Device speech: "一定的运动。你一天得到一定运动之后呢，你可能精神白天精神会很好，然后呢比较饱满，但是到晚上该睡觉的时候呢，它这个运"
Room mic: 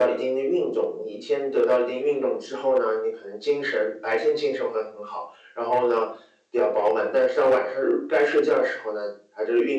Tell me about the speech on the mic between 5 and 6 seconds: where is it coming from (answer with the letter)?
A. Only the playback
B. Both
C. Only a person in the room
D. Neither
A